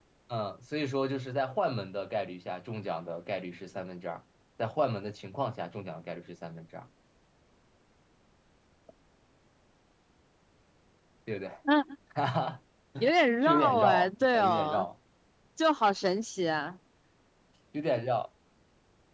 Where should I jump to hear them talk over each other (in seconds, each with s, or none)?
13.4 s